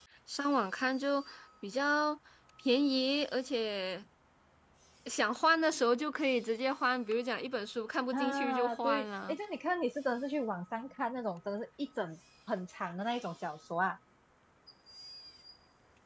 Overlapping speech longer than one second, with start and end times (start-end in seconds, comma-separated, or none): 8.1-9.3